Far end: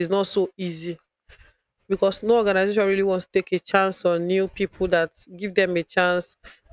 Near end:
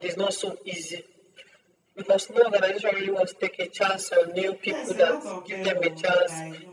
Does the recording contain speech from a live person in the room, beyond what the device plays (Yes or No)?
Yes